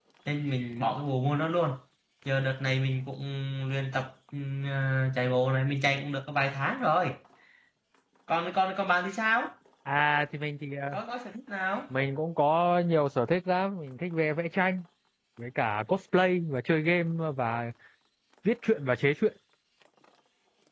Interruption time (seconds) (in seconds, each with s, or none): none